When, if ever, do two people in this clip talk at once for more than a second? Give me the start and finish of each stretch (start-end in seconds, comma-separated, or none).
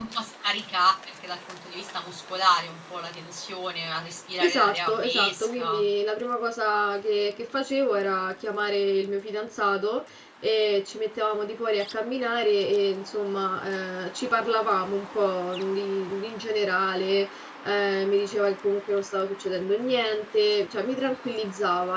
4.4-5.8